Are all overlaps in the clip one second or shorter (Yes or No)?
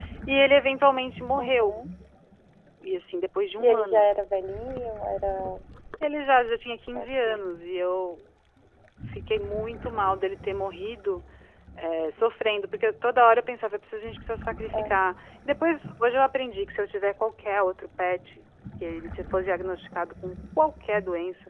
Yes